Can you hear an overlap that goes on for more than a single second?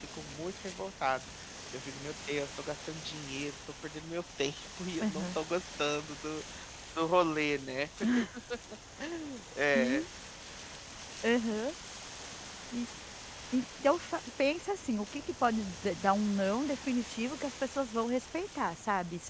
No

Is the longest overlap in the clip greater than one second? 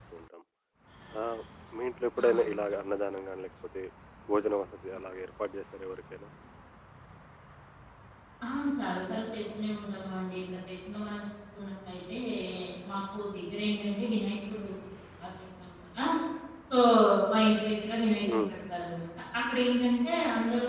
No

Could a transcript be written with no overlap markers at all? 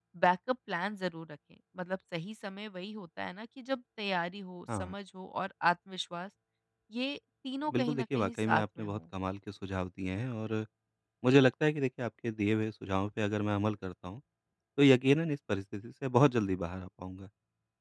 No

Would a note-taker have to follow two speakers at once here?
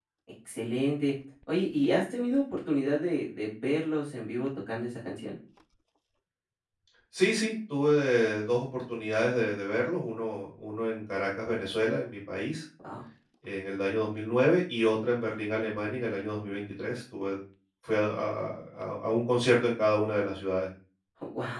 No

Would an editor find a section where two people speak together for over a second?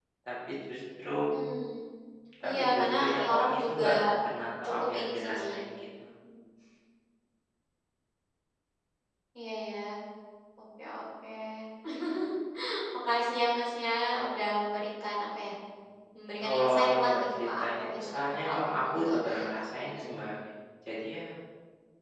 Yes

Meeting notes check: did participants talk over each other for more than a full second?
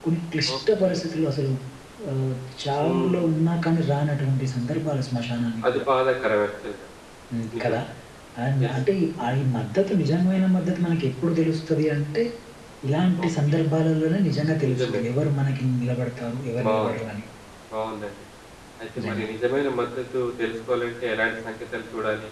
No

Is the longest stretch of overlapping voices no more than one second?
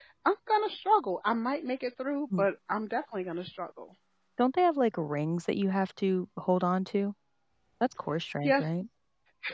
Yes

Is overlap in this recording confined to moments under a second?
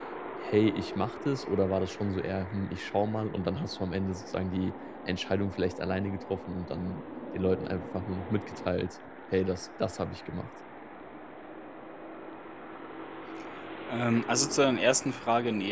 Yes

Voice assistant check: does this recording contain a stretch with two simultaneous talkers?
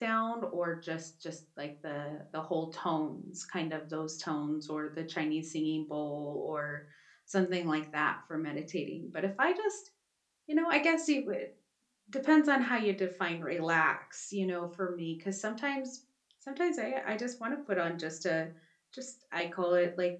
No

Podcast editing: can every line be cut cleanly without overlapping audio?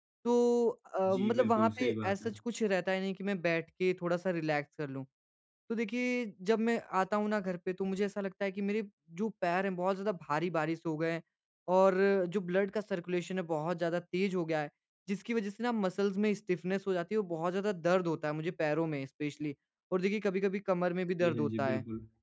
No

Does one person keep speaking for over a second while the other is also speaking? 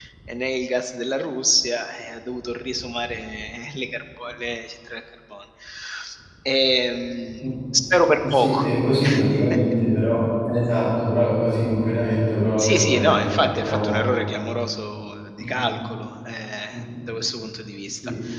Yes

